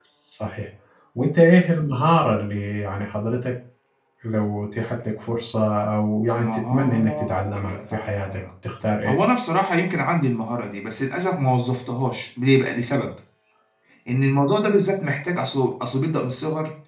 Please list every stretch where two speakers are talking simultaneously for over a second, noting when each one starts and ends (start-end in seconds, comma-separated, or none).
6.4-8.4